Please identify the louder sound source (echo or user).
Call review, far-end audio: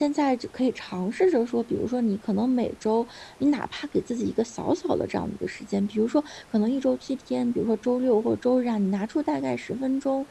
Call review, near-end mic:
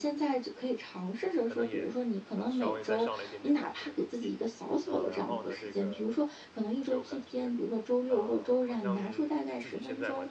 echo